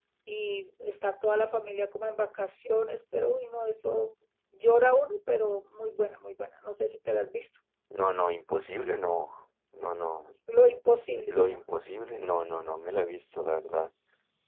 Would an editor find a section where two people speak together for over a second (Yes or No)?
No